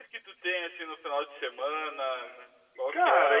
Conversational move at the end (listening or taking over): taking over